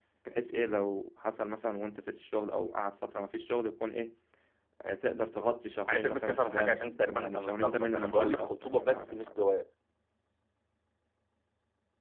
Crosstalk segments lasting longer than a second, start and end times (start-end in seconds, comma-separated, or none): 5.9-9.2